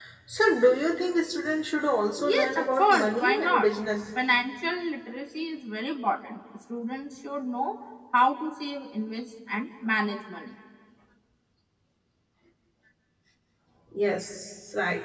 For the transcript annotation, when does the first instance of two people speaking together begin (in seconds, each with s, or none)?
2.2 s